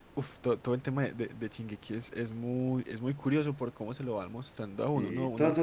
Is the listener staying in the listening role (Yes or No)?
No